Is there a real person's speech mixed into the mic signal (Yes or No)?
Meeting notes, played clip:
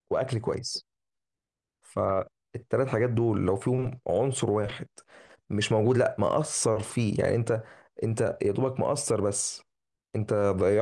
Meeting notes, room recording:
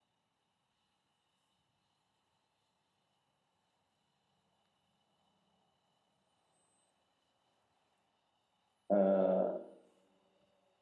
Yes